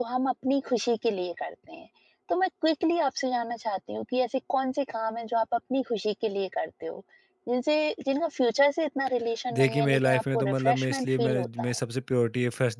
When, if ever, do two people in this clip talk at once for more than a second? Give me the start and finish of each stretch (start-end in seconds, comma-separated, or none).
9.5-11.8